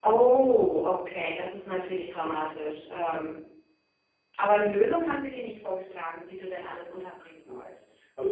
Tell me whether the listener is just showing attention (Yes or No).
No